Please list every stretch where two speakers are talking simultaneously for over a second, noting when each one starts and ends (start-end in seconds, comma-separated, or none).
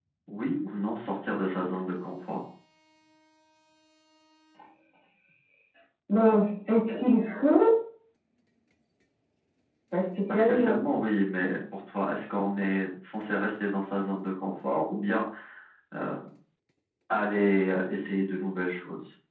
none